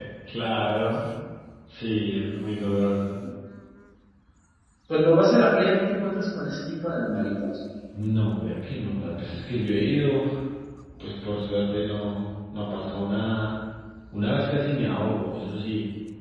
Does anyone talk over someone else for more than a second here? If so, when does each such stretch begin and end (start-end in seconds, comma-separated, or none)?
none